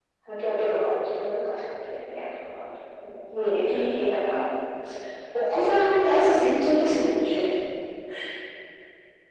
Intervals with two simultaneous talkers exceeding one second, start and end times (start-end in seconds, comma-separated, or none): 5.5-7.2